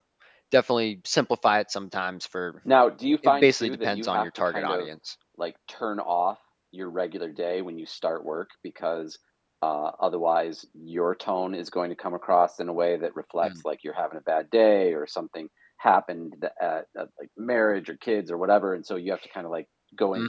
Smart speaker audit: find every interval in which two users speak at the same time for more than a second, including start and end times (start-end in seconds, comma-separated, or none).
3.2-4.9